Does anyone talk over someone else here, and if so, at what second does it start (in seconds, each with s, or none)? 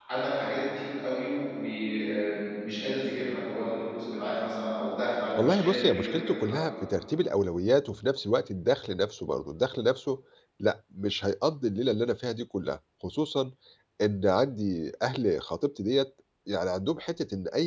5.3 s